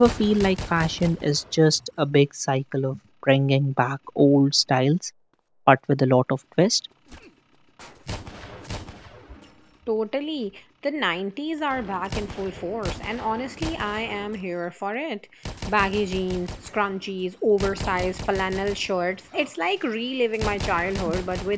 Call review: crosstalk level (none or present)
none